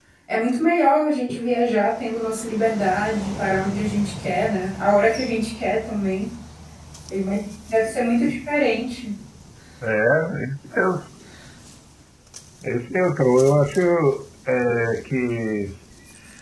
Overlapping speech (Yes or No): No